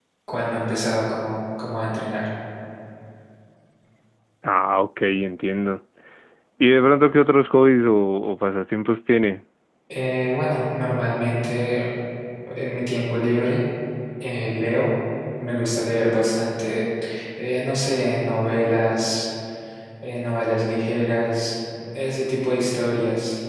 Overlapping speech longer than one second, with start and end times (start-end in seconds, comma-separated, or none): none